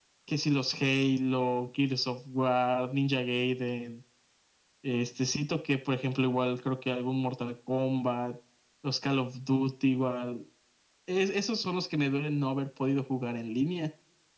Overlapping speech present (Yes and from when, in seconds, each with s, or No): No